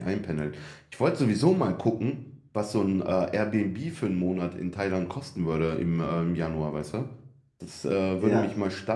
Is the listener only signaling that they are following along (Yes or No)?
Yes